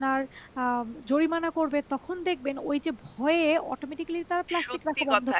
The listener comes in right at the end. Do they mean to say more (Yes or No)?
Yes